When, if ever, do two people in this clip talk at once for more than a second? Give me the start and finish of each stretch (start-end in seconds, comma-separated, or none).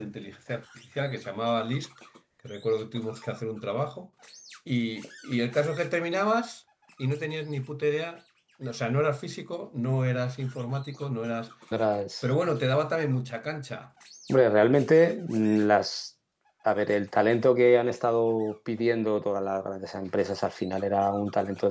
none